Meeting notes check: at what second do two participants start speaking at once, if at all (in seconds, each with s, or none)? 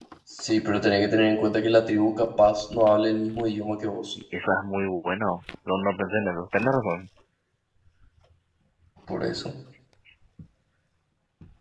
none